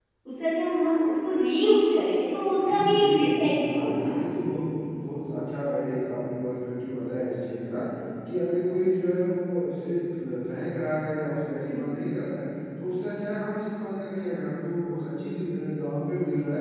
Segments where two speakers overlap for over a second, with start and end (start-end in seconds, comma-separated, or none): 2.7-4.1